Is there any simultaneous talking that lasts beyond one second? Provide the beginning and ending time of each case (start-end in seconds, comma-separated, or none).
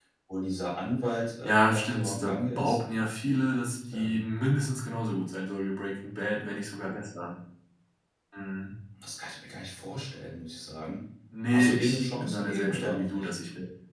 1.4-2.8, 11.5-13.3